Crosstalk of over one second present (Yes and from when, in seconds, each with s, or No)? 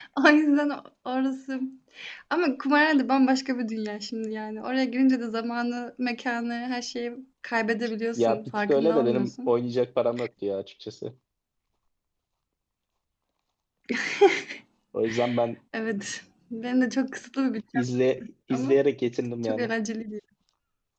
Yes, from 8.2 s